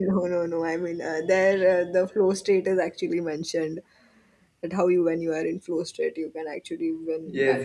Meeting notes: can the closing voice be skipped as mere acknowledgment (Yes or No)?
No